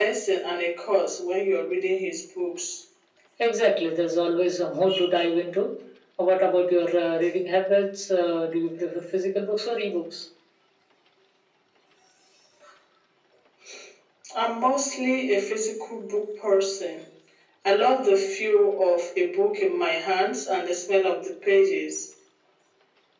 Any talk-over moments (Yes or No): No